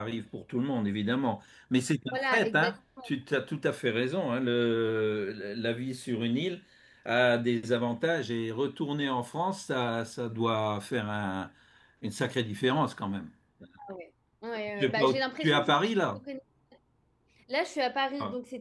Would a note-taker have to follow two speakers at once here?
Yes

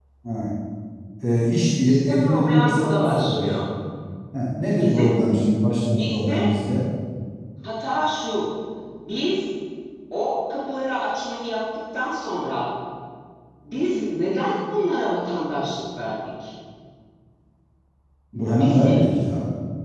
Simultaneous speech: Yes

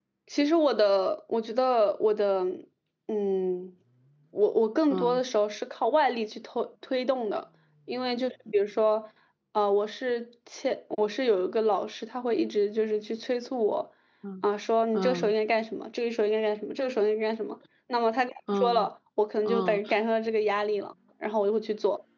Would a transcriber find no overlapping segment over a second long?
Yes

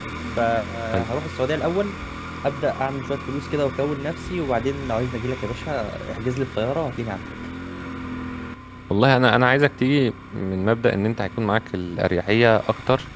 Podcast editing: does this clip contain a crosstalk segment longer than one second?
No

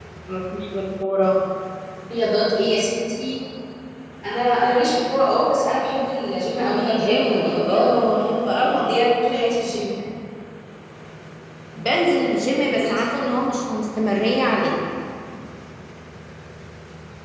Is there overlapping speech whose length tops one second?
Yes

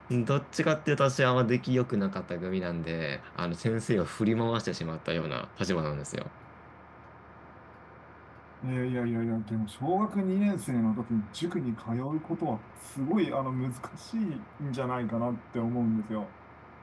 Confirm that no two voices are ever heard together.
Yes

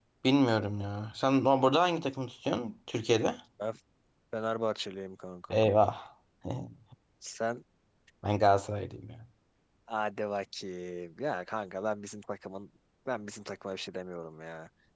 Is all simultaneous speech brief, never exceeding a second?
Yes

